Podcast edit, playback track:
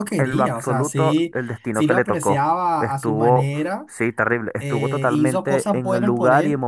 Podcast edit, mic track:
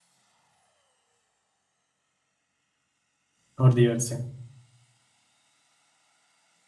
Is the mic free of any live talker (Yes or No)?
No